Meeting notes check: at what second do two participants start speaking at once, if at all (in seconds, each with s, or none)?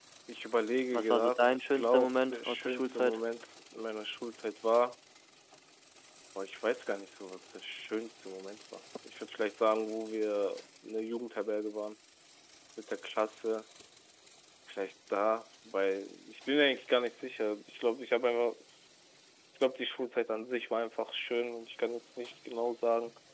0.9 s